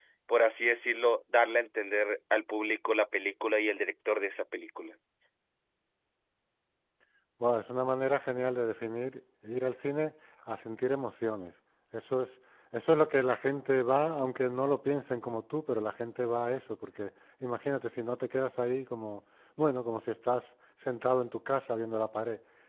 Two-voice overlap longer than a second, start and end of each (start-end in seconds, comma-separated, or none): none